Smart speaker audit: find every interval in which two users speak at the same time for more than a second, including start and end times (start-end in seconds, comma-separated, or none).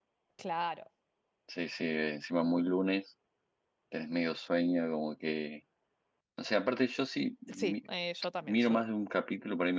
none